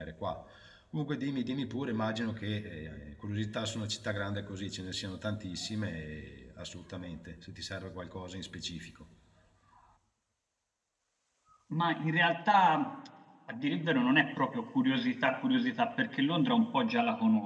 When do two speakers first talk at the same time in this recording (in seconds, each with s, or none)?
none